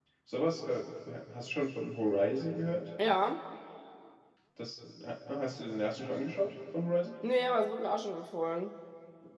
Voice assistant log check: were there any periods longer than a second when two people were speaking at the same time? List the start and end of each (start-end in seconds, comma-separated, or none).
none